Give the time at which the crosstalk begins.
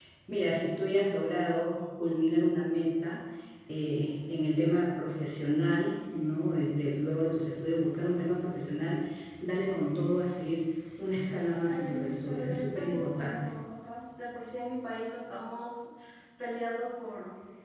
11.7 s

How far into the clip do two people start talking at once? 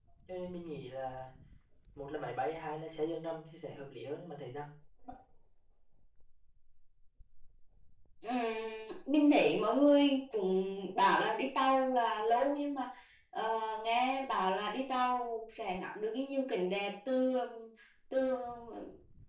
none

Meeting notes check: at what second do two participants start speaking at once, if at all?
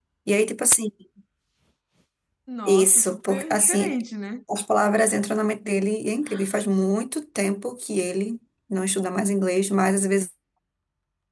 2.6 s

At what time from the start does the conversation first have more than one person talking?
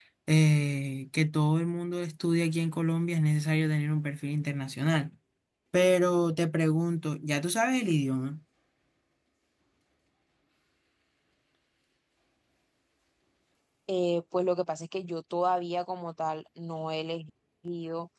none

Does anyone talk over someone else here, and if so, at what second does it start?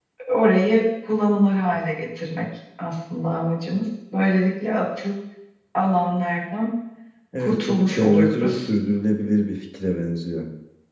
7.4 s

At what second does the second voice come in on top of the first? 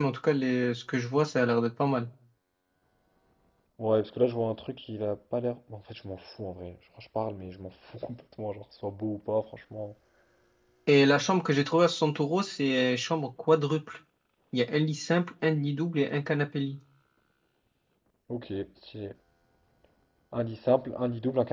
none

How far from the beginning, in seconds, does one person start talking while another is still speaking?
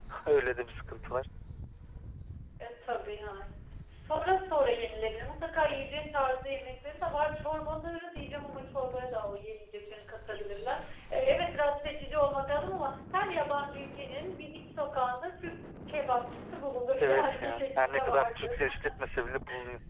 17.0 s

